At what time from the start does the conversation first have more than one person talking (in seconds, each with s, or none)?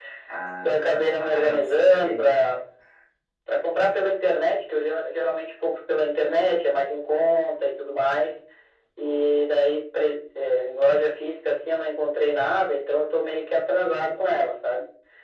0.6 s